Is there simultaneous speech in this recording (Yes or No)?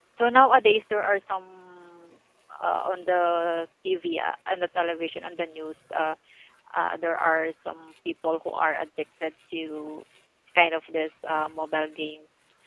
No